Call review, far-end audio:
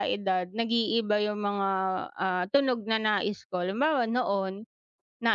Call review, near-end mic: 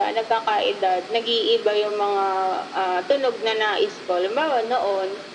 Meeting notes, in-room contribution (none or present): none